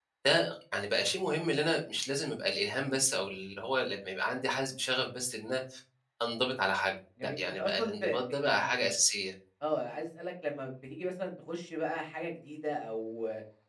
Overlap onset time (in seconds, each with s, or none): 7.2 s